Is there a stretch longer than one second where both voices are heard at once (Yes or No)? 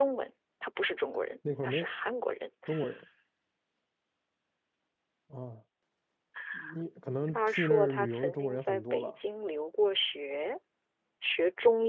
Yes